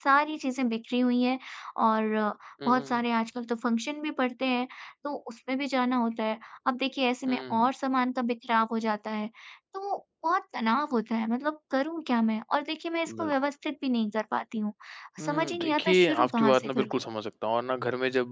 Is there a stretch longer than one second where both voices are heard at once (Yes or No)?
Yes